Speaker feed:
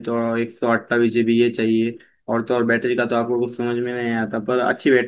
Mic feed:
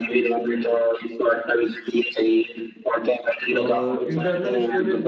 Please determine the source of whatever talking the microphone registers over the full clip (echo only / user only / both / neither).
both